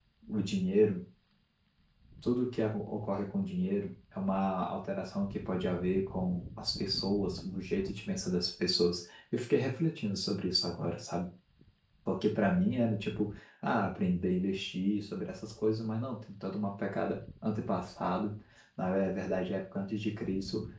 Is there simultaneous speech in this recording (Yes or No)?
No